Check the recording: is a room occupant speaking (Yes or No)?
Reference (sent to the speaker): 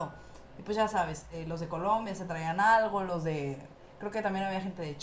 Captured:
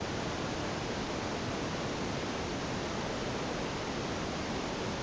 No